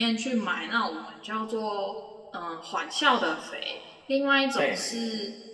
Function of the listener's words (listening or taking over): listening